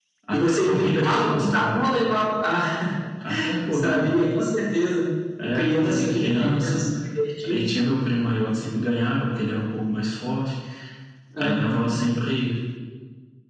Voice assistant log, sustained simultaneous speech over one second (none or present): present